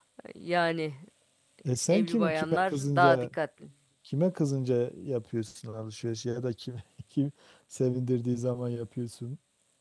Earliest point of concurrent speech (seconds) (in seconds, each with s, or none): 1.9 s